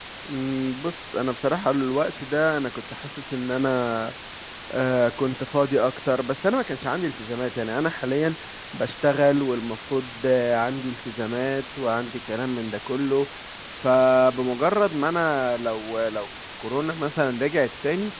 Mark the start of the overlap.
none

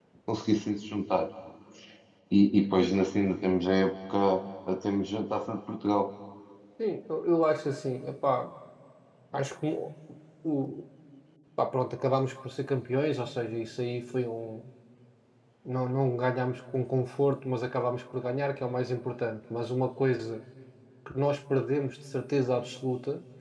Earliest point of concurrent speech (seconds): none

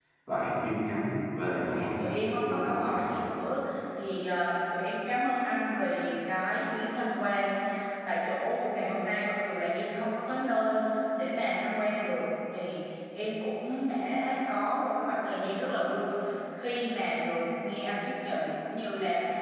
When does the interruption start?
1.7 s

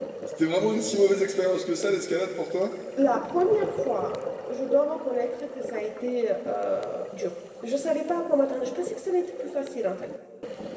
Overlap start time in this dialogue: none

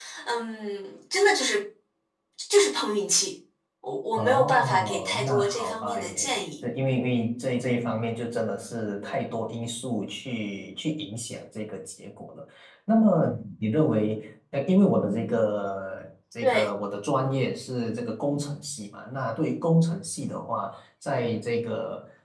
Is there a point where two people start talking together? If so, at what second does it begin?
4.1 s

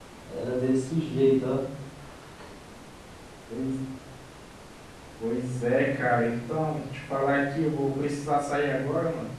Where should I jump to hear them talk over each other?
none

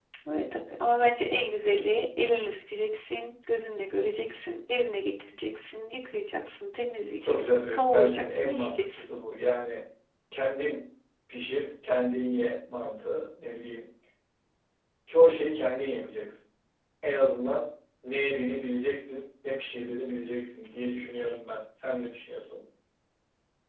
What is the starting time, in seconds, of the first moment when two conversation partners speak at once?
7.2 s

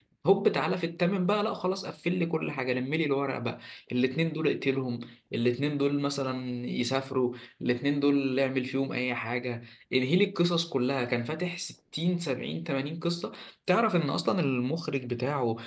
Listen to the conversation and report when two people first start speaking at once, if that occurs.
none

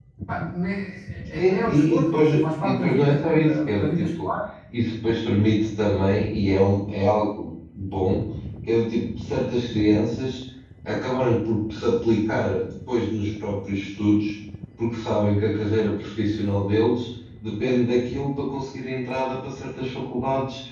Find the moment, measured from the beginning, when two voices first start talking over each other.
1.4 s

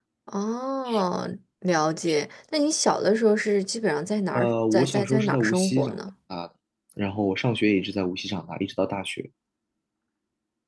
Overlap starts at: 4.3 s

